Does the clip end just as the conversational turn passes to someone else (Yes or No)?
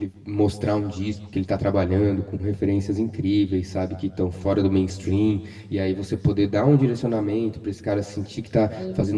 No